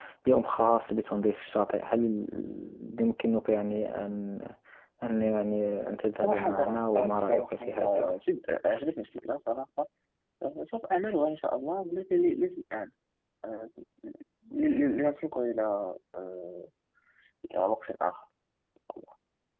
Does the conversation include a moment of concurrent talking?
Yes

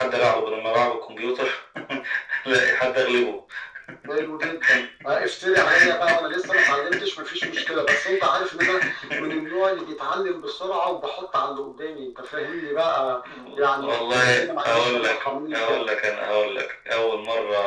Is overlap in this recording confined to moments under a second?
No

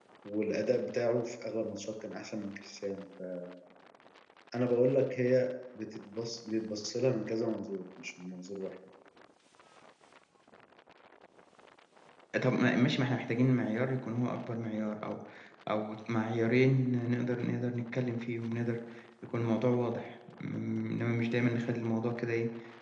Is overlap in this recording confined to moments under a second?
Yes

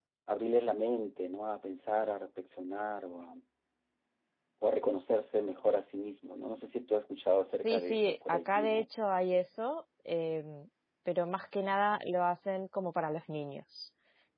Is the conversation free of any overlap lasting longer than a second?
No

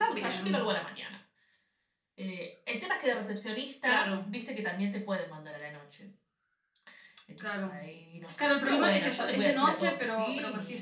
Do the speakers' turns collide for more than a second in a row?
Yes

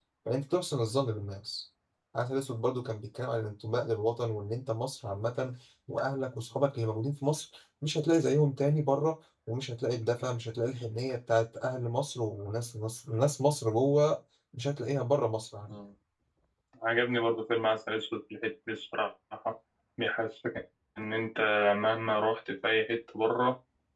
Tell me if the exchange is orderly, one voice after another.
Yes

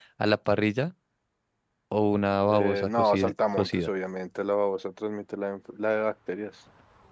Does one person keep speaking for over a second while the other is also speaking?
Yes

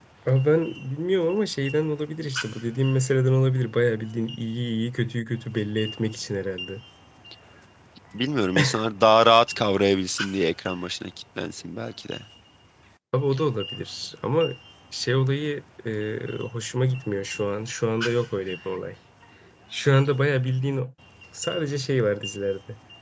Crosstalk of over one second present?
No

